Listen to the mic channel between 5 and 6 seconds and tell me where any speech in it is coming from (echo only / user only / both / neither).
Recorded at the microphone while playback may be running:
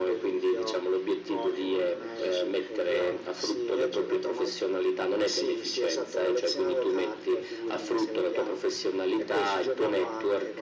echo only